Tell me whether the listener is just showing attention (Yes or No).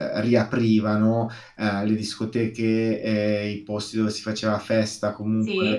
Yes